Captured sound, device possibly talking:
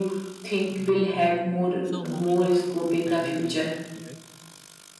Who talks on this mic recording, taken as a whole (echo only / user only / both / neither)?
both